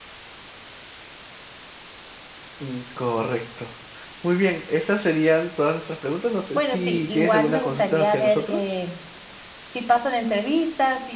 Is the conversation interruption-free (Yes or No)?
No